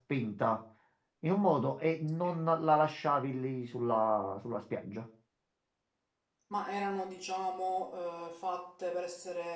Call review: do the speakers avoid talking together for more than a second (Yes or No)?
Yes